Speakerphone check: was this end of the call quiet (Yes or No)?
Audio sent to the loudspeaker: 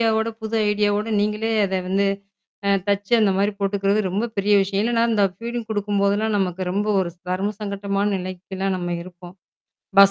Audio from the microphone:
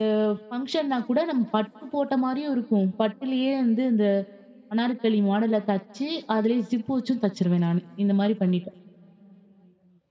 No